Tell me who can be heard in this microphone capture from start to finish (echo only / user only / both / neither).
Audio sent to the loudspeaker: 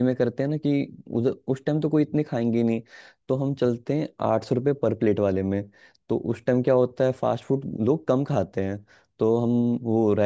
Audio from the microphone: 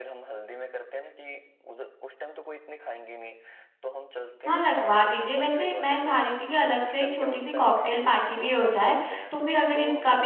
both